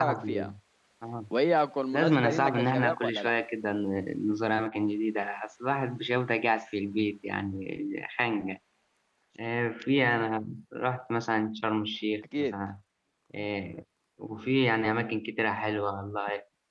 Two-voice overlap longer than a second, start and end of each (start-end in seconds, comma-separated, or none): 1.9-3.3